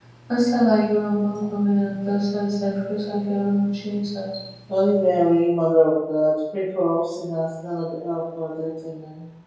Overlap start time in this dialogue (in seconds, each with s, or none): none